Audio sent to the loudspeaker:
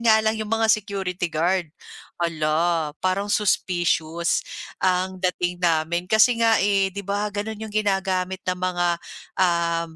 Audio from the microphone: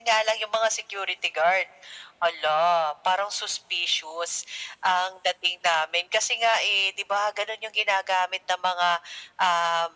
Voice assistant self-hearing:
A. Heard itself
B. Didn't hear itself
A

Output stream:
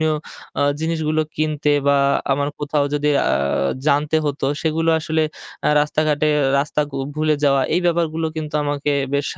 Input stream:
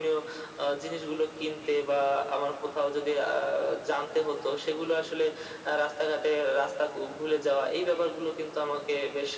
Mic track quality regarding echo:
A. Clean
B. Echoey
B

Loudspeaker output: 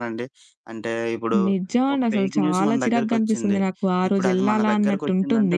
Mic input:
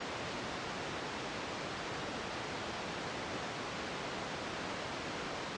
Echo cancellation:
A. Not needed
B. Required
A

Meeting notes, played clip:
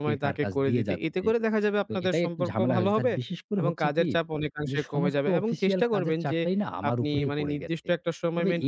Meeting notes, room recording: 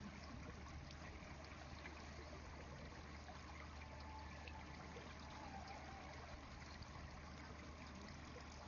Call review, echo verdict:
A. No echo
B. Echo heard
A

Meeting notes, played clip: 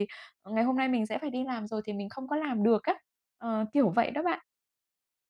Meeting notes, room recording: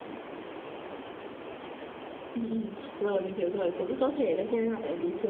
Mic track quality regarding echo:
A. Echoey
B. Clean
B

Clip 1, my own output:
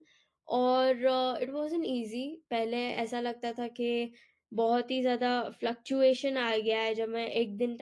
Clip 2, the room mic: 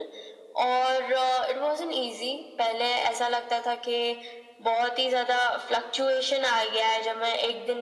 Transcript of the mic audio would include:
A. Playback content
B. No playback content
A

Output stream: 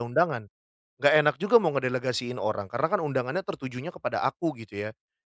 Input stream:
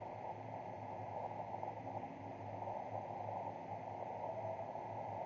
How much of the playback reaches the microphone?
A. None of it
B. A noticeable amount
A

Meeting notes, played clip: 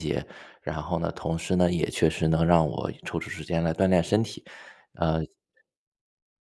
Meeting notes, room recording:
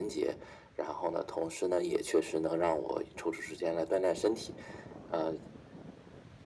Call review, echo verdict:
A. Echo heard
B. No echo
A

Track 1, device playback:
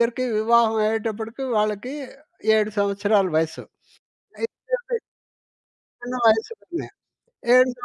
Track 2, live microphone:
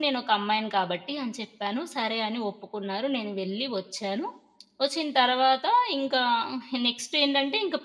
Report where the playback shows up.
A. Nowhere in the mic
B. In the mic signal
A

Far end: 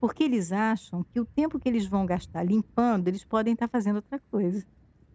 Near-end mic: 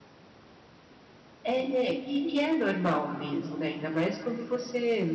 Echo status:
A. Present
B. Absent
B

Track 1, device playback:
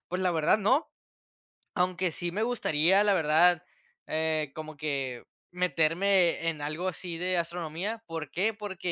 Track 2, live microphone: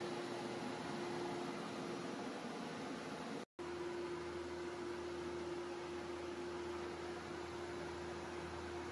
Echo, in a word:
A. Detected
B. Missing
B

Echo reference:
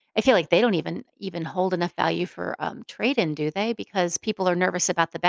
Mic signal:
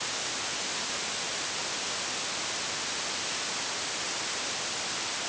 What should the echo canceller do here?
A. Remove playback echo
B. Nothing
B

